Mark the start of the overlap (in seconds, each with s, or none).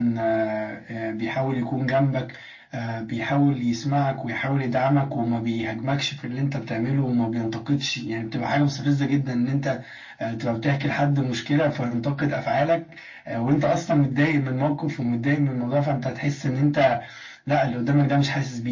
none